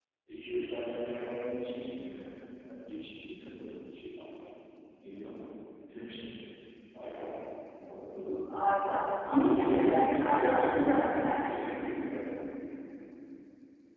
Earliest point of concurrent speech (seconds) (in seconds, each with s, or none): 9.3 s